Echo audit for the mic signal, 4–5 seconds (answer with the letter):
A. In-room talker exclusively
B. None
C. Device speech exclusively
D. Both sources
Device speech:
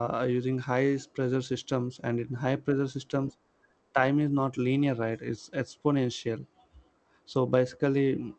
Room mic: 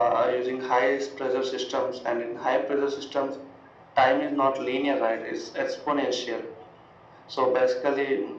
C